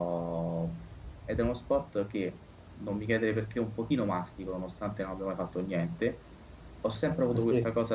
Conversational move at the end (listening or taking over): listening